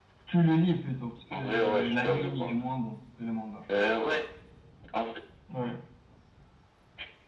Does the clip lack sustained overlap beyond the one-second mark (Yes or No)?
No